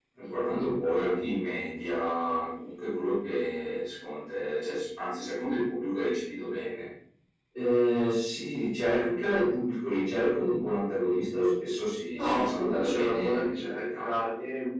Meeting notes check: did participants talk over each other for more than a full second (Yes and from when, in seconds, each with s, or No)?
Yes, from 12.1 s